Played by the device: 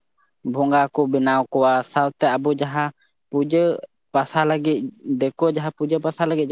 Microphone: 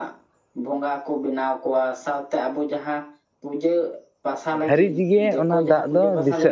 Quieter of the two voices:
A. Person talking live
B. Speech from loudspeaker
B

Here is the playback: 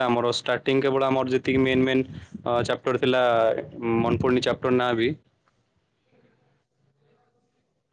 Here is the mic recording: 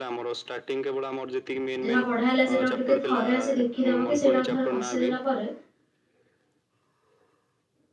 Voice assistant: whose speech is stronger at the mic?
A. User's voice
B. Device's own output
A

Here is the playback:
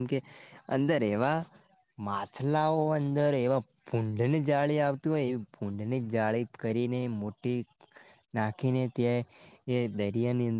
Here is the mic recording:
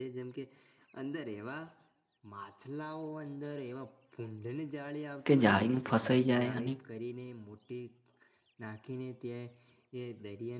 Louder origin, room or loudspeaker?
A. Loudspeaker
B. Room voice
B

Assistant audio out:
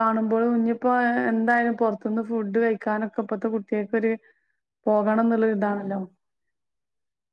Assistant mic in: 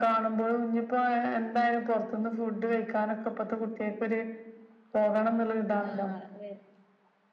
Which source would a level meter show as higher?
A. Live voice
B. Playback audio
B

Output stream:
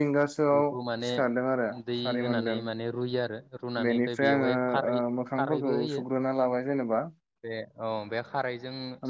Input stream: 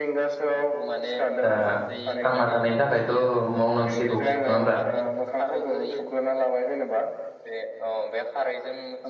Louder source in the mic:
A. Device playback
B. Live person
B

